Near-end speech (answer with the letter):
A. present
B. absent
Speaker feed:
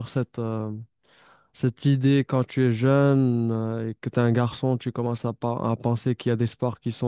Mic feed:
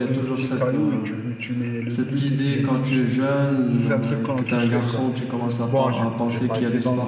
A